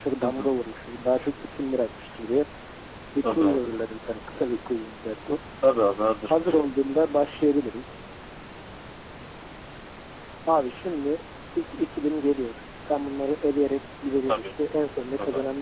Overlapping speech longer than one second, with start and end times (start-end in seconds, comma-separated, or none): none